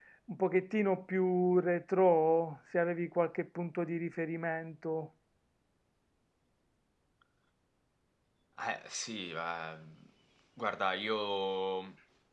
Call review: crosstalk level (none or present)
none